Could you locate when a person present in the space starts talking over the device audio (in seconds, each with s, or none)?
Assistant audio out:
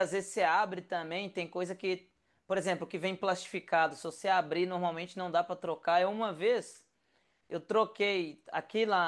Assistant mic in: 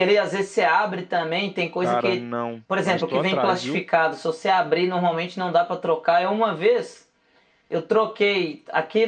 1.8 s